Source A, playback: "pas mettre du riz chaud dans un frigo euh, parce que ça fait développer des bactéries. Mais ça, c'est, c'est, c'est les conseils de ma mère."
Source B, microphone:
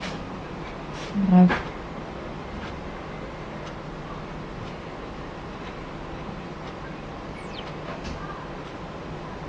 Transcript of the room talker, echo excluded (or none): Grave.